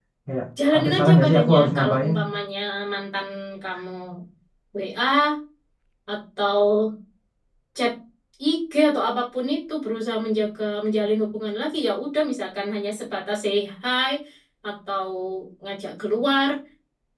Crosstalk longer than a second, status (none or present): present